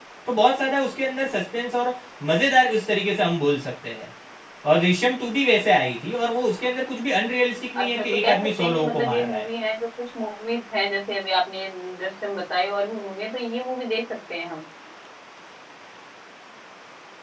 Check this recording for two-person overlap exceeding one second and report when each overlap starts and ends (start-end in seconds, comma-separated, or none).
7.8-9.4